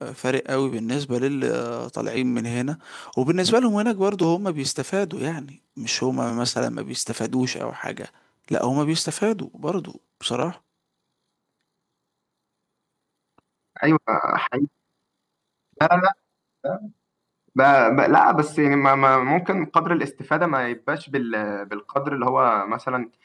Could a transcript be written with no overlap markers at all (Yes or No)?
Yes